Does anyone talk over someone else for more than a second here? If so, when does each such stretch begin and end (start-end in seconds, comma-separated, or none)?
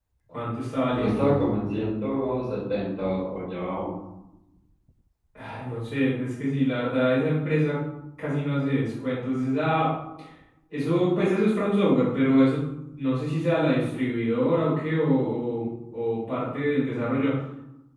none